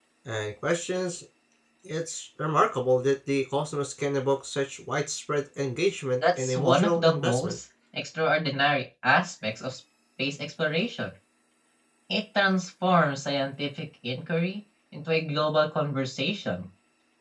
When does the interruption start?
6.2 s

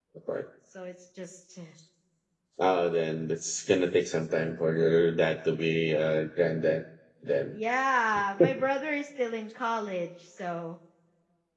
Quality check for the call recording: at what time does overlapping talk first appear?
none

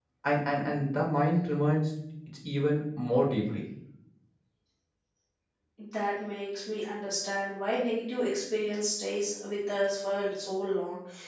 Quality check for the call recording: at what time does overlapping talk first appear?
none

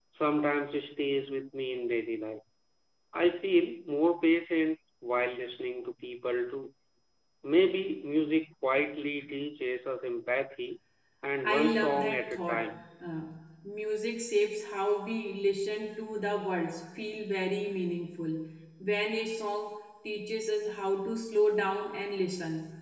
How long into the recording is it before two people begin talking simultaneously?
11.4 s

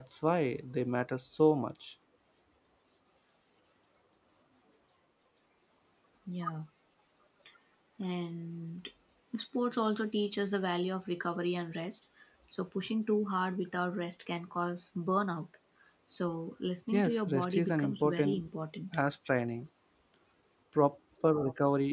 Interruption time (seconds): 16.9 s

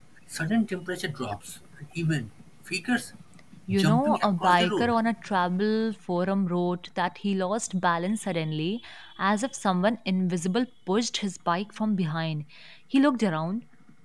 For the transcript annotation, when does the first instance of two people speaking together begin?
3.7 s

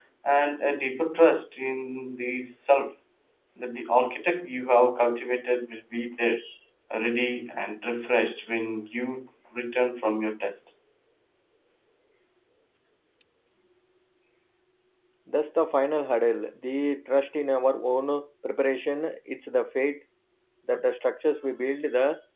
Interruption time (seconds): none

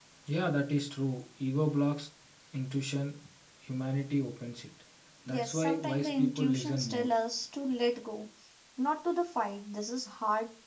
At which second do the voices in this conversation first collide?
5.3 s

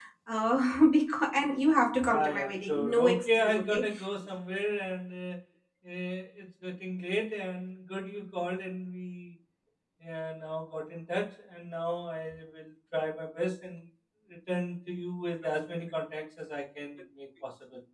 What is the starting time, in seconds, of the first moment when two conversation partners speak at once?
2.1 s

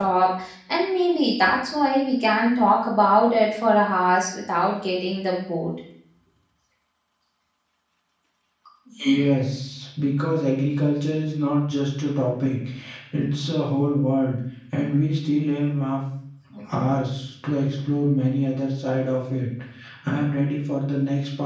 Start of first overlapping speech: none

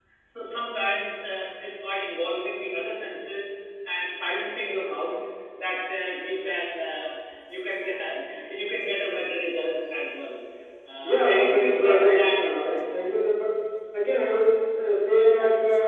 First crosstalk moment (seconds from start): 11.0 s

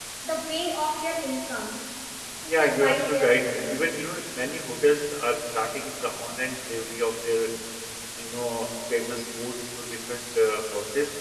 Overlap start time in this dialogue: 2.5 s

